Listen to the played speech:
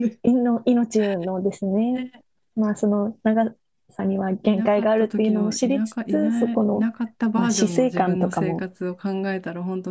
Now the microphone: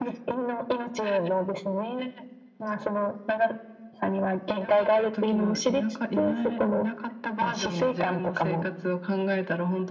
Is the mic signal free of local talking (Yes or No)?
Yes